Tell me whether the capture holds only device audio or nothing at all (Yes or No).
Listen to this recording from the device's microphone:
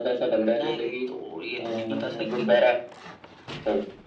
No